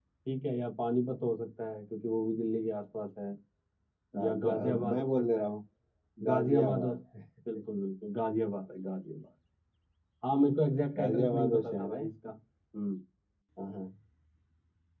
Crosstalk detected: Yes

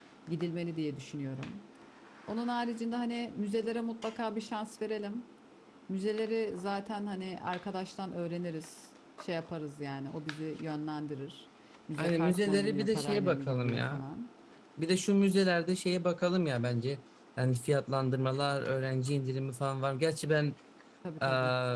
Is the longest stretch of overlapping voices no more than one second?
No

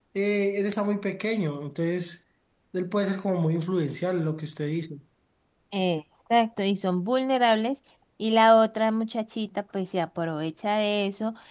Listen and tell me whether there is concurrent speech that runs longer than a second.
No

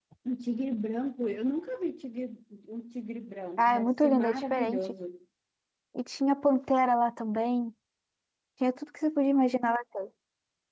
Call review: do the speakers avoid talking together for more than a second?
No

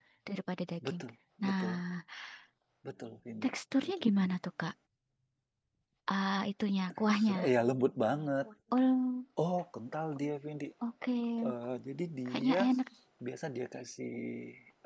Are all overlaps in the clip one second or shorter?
Yes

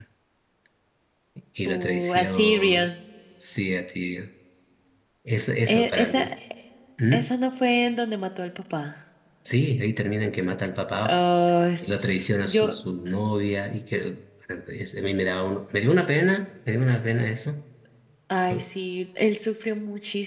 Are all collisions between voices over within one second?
No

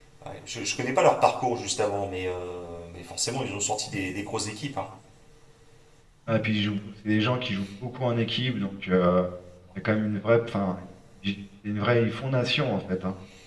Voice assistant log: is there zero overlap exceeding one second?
Yes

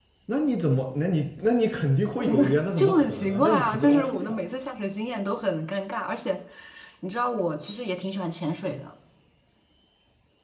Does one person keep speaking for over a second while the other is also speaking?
Yes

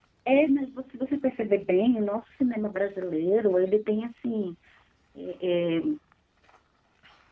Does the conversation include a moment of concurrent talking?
No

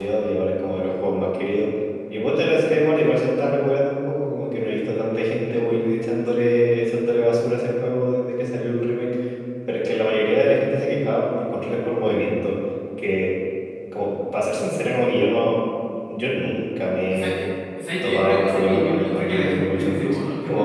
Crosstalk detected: Yes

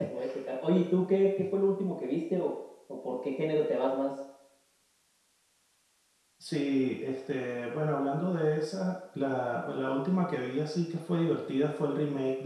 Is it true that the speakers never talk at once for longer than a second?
Yes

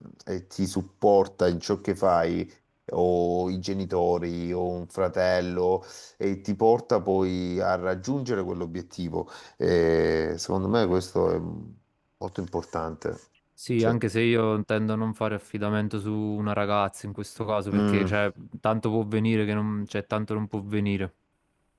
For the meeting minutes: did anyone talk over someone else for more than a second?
No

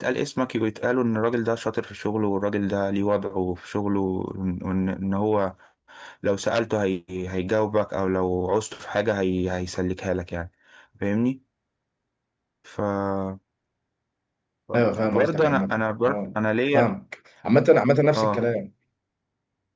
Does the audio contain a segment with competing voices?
Yes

